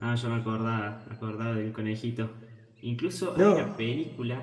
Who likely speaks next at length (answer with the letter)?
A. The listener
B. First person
B